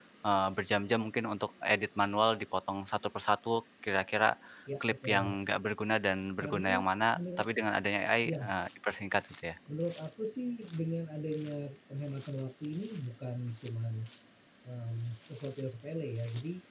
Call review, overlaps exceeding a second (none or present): none